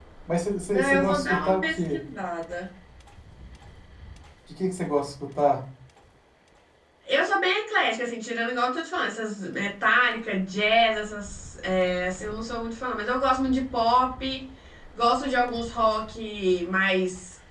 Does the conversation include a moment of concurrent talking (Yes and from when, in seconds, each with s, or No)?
Yes, from 0.7 s